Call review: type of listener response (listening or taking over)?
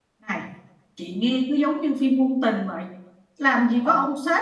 listening